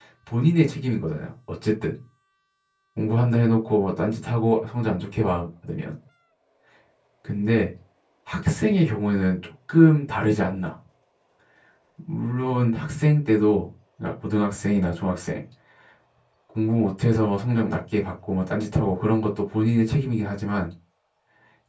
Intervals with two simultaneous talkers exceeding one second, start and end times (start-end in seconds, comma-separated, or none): none